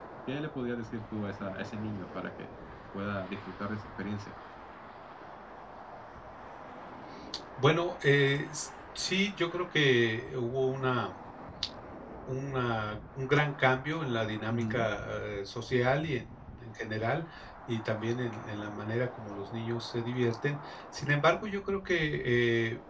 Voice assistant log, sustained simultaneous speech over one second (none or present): none